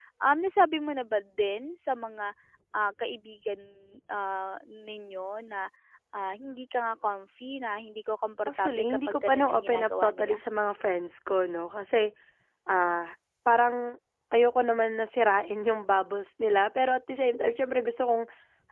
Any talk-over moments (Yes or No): Yes